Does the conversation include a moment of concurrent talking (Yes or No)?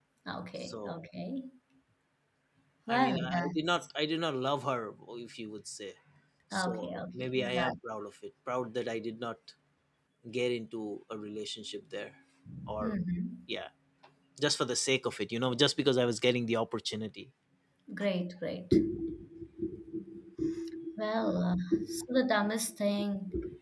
Yes